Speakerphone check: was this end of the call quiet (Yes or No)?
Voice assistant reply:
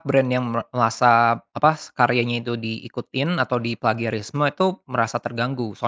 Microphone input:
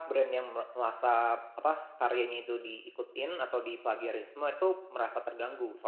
Yes